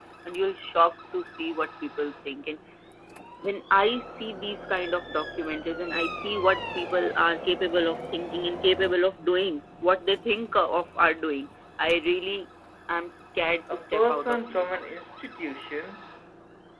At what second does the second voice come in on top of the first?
13.7 s

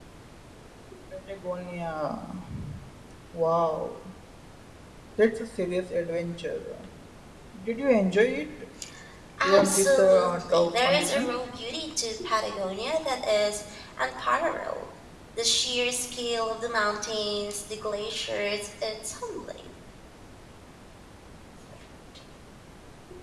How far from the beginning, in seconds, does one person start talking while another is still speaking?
9.4 s

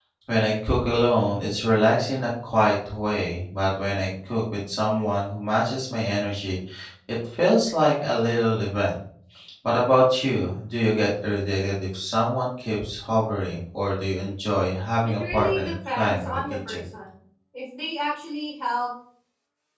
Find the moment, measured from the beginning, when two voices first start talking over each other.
15.2 s

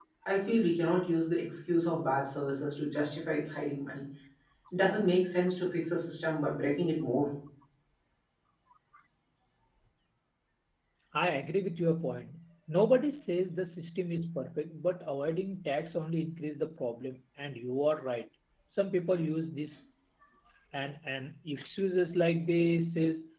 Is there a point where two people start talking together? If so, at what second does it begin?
none

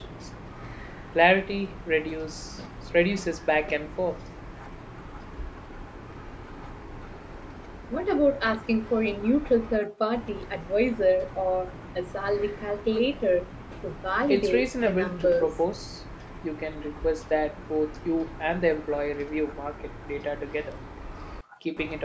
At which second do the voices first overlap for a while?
14.3 s

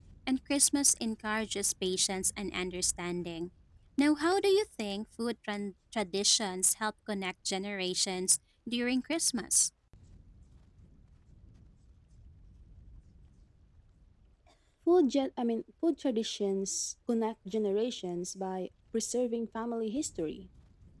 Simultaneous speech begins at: none

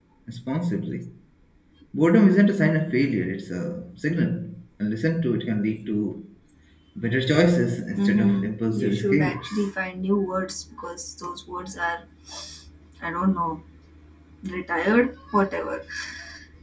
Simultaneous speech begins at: 8.0 s

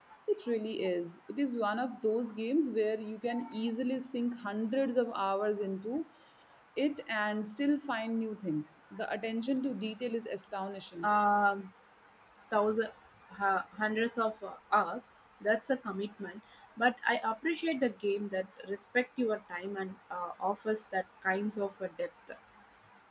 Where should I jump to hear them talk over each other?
none

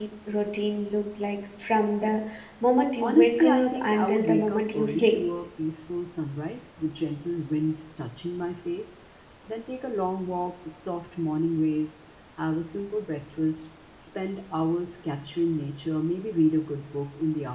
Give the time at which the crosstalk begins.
3.0 s

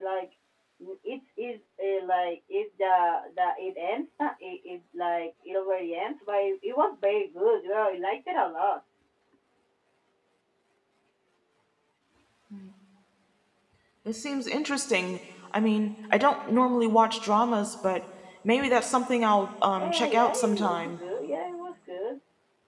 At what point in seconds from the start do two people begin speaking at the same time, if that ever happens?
19.8 s

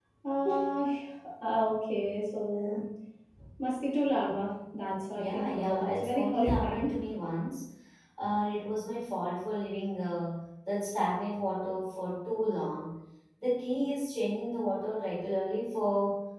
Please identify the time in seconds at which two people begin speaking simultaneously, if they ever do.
5.1 s

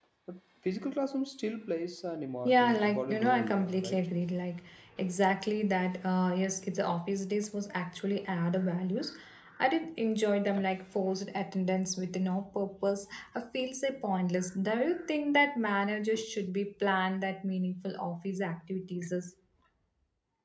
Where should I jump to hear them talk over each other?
2.5 s

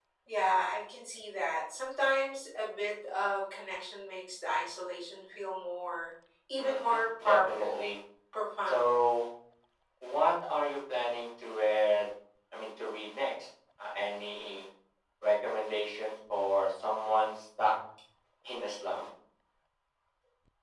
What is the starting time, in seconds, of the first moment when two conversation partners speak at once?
6.6 s

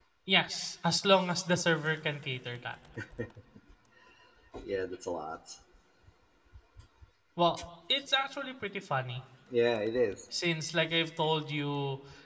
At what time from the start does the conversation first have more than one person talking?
none

